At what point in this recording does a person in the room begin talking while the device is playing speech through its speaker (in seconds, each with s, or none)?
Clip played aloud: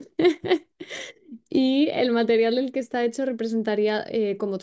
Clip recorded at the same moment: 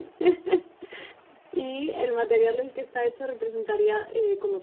none